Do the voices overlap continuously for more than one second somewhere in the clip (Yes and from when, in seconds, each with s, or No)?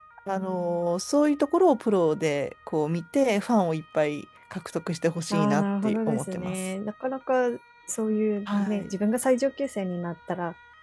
Yes, from 5.3 s